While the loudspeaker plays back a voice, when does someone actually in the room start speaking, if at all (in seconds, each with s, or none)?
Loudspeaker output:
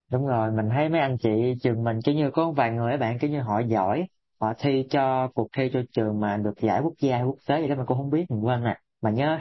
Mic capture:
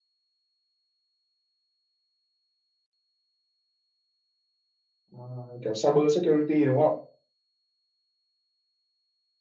5.2 s